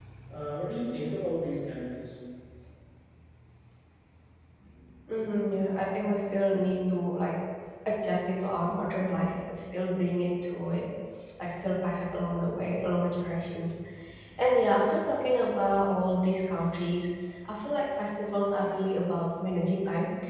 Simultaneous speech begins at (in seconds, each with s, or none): none